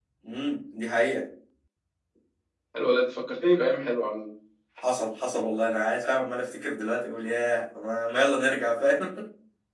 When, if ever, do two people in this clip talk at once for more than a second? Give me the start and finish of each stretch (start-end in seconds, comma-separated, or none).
none